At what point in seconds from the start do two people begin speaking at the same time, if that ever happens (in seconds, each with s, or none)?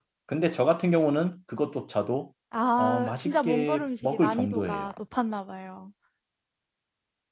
2.8 s